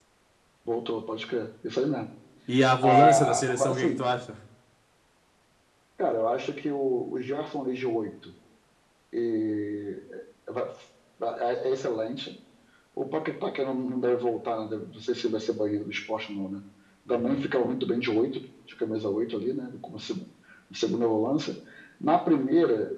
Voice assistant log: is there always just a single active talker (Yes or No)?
No